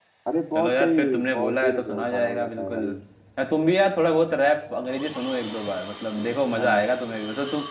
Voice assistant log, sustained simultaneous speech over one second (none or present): present